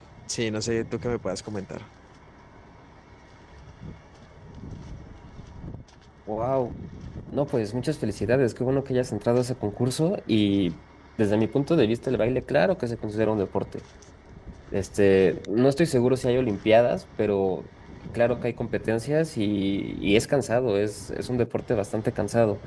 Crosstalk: none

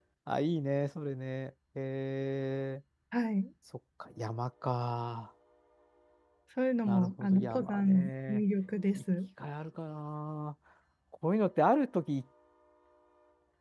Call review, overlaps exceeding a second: present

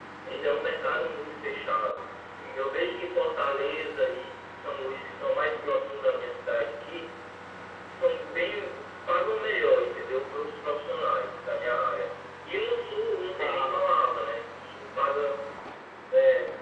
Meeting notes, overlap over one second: none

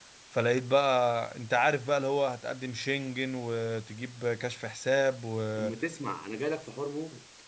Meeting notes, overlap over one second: none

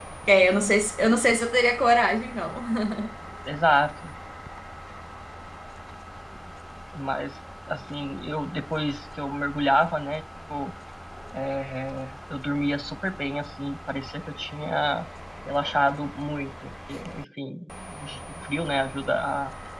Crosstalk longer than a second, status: none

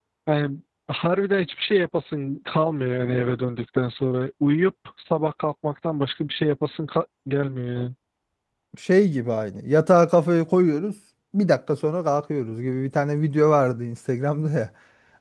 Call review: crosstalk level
none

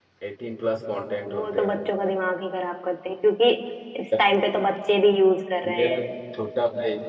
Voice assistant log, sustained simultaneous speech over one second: none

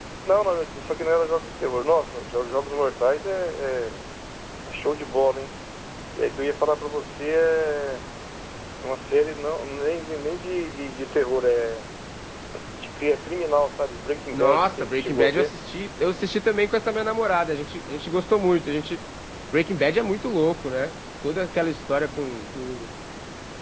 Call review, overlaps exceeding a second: present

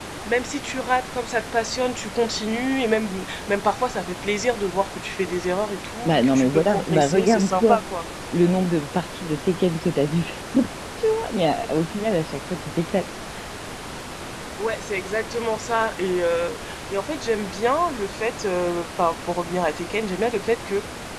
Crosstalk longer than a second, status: present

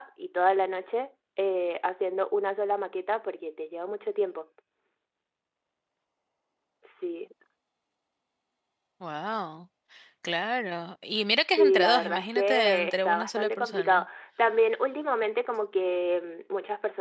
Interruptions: present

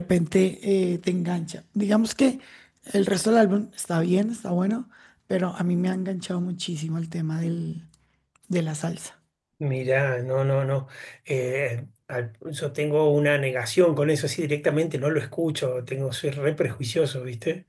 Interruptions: none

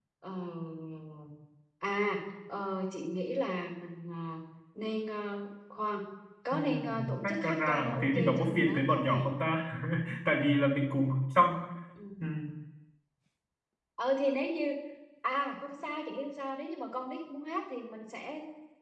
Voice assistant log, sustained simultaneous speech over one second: present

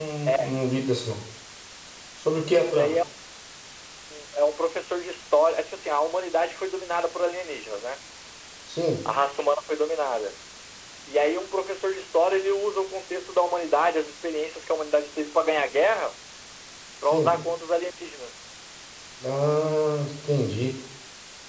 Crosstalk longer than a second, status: none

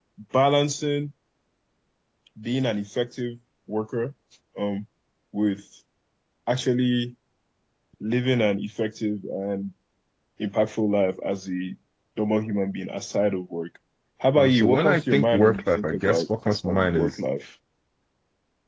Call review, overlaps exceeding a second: present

